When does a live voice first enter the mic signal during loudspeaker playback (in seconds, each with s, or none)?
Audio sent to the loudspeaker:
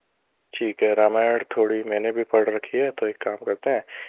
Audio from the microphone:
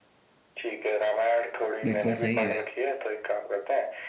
1.8 s